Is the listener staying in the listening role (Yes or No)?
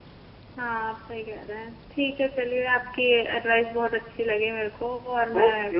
No